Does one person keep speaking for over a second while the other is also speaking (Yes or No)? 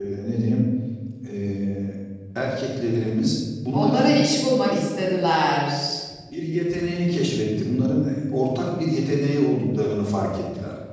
No